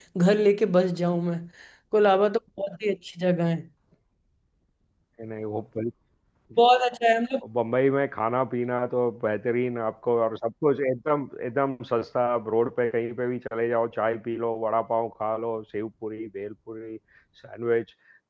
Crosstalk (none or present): none